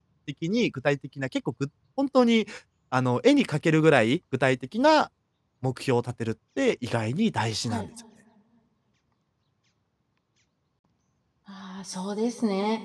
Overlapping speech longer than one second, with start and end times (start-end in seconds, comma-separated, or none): none